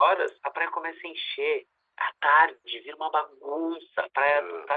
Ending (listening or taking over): listening